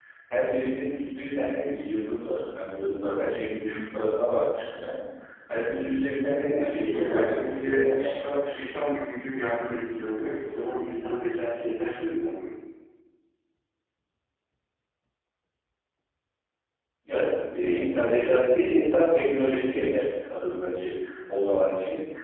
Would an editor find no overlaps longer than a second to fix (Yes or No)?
No